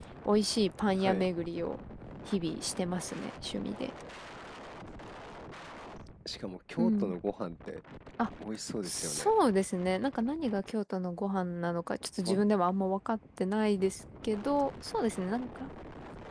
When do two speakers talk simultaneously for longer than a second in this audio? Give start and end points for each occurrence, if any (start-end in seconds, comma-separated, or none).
none